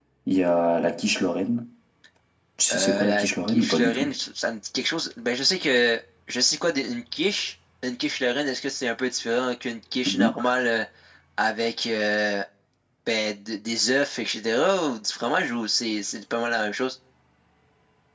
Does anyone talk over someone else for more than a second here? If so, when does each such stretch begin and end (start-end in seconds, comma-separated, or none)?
2.7-4.1